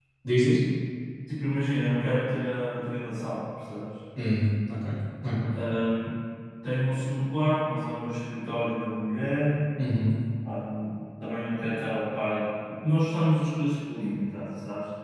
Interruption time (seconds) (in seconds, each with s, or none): none